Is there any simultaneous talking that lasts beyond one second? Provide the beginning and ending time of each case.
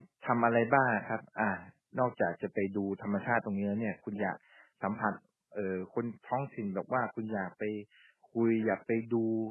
none

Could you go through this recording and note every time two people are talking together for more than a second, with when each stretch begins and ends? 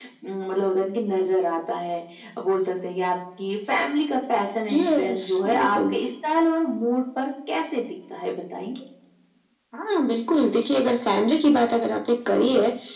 4.7-5.9

